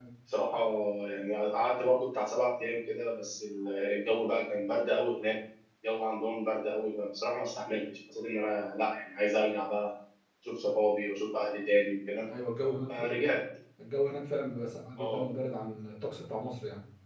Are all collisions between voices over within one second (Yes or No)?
Yes